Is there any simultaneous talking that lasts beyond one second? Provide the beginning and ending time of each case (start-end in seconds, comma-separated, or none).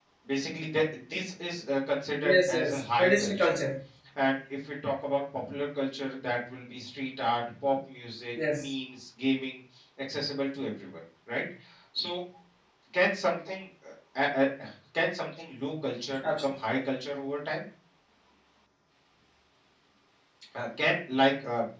2.2-3.6